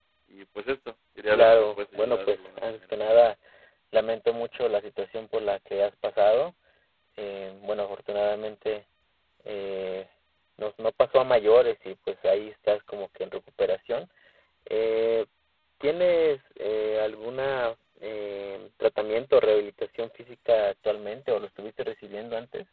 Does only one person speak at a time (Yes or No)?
No